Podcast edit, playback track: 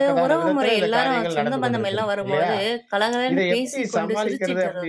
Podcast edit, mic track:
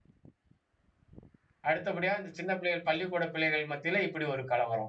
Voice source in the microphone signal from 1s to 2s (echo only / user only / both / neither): user only